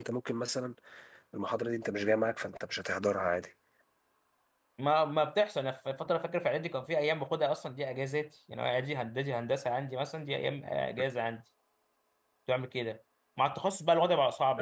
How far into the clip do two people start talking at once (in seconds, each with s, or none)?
none